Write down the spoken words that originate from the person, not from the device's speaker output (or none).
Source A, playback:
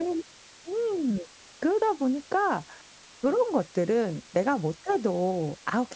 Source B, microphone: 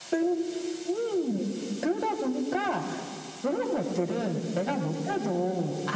none